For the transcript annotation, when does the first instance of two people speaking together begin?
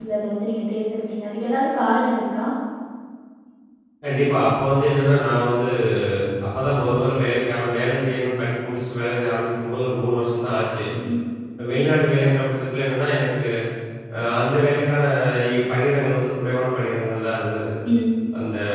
none

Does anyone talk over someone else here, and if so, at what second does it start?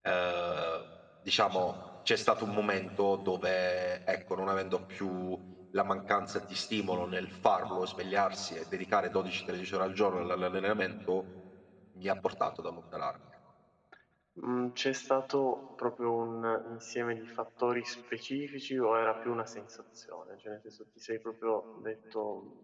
none

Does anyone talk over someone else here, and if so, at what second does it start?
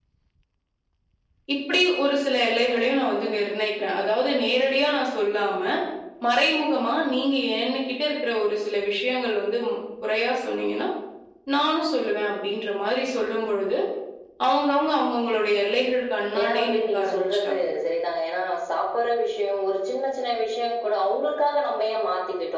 16.3 s

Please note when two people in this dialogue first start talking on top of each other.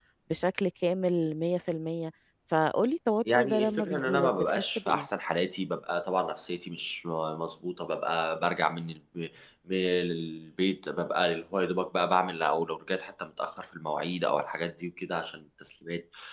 3.2 s

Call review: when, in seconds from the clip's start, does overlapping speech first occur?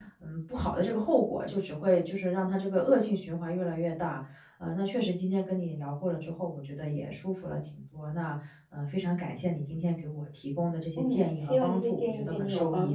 11.0 s

